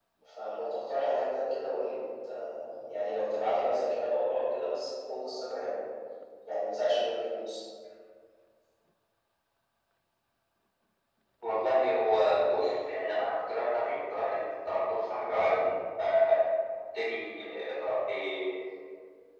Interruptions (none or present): none